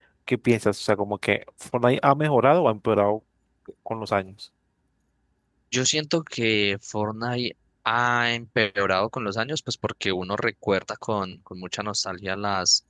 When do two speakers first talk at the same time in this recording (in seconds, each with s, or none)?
none